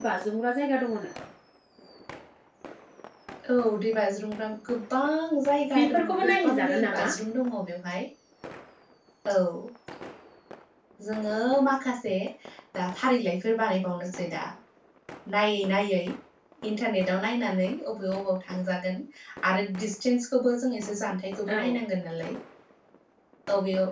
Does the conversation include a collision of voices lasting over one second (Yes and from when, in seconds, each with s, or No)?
Yes, from 5.8 s